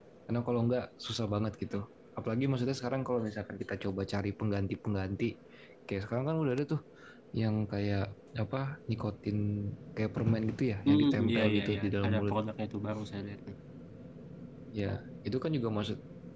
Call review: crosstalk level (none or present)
present